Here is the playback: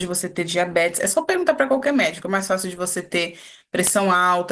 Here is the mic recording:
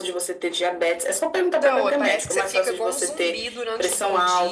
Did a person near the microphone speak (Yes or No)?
Yes